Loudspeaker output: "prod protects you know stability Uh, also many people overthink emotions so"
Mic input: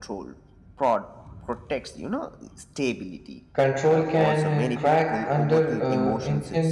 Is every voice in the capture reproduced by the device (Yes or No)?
No